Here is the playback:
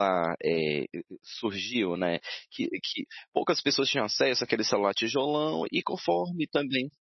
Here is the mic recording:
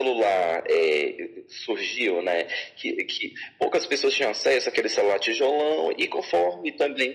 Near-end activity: none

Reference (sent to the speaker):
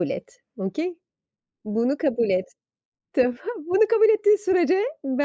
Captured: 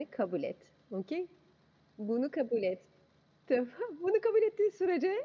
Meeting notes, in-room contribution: none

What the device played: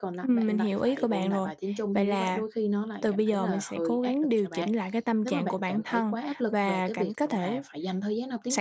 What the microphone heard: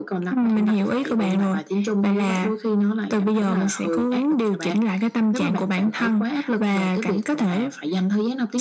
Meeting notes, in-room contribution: none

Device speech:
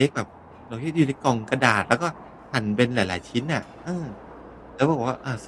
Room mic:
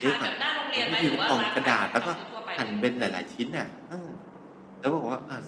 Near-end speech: present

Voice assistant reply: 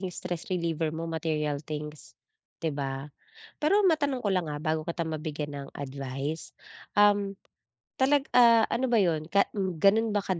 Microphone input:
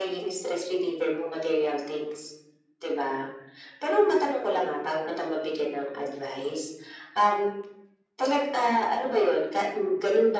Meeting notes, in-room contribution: none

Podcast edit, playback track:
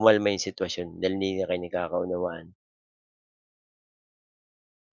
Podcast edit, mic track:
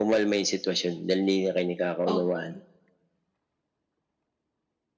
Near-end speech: present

